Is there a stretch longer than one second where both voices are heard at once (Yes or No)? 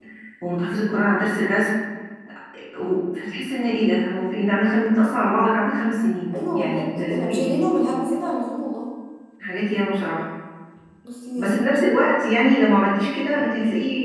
Yes